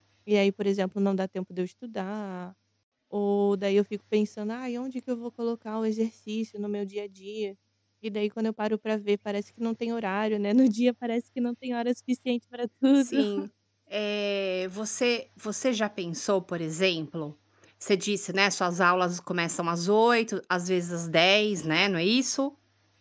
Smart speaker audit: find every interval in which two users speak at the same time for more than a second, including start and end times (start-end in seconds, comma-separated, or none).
none